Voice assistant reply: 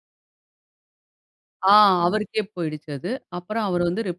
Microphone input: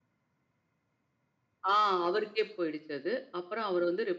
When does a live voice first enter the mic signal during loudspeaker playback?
none

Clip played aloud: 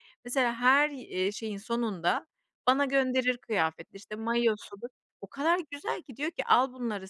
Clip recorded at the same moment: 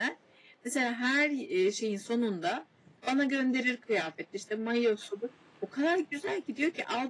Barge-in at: none

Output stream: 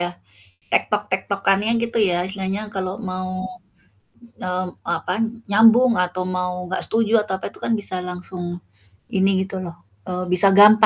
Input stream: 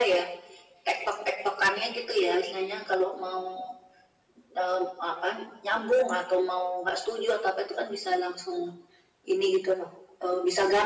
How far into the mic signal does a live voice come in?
none

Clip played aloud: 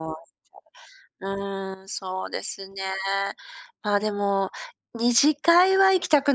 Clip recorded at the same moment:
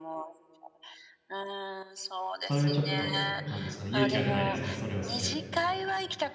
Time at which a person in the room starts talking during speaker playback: 2.4 s

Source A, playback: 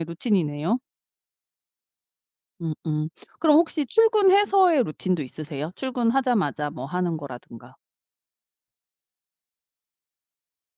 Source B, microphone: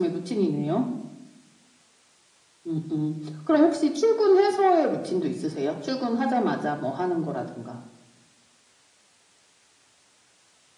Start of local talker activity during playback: none

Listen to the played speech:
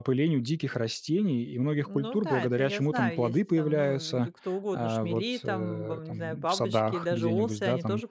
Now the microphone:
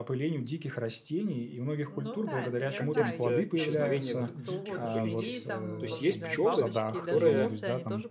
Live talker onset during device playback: 2.7 s

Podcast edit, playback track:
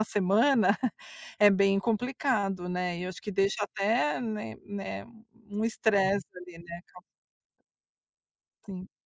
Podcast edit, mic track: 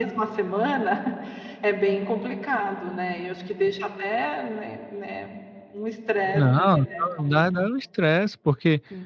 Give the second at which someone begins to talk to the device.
6.3 s

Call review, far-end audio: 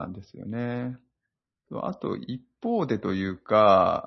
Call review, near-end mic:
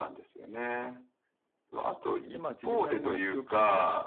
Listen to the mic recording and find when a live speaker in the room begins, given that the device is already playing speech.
2.2 s

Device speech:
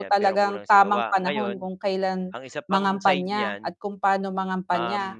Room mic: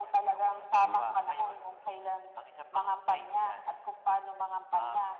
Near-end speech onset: 0.8 s

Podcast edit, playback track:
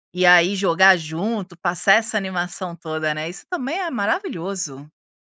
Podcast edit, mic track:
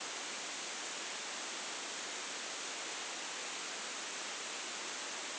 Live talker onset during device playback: none

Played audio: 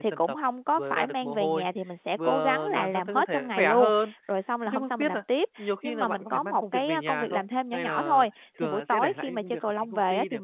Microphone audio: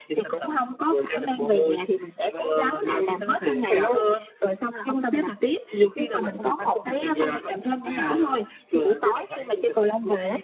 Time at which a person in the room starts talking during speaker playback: none

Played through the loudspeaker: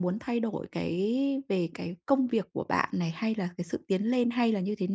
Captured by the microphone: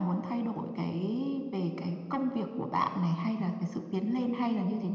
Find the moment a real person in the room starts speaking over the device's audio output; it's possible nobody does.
none

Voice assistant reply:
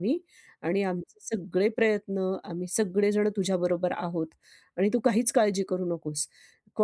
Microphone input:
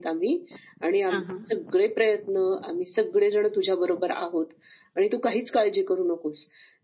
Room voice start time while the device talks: 1.1 s

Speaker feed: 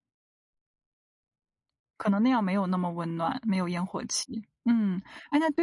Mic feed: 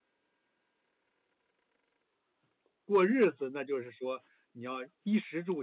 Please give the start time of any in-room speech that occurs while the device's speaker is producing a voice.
2.8 s

